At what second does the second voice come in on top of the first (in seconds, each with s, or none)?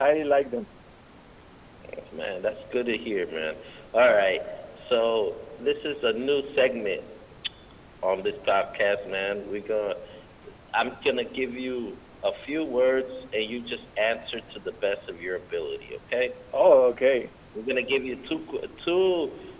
none